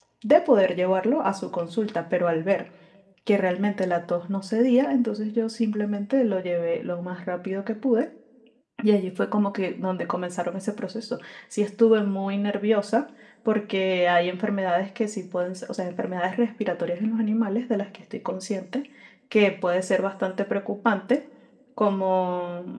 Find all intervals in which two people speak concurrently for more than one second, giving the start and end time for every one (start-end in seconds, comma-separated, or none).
none